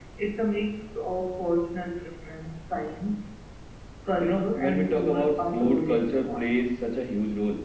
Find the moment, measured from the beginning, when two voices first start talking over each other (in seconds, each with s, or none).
4.2 s